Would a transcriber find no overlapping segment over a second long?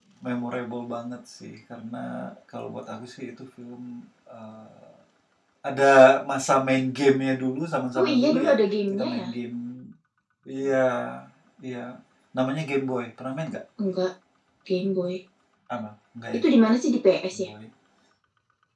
Yes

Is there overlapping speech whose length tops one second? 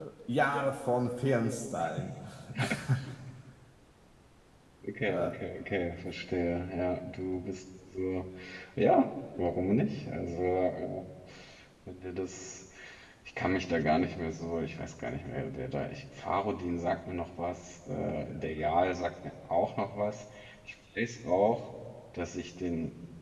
No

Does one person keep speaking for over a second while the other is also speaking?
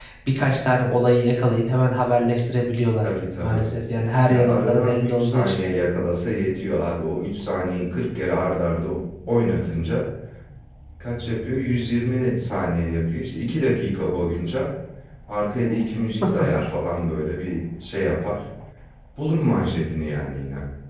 Yes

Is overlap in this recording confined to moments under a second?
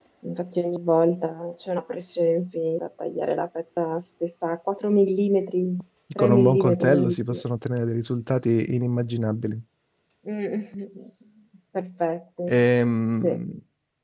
No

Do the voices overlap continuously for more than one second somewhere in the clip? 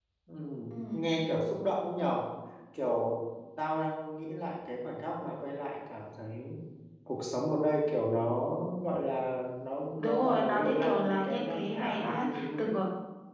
Yes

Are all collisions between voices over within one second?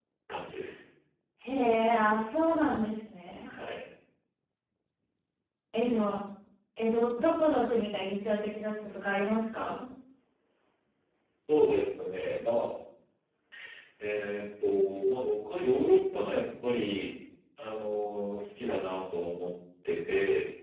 Yes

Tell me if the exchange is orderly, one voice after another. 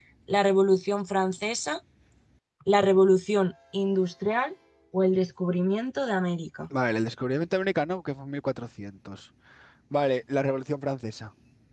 Yes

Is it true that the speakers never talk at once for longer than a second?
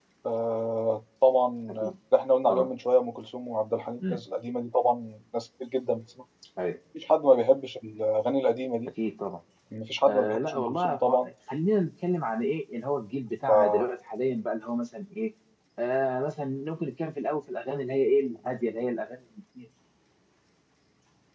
No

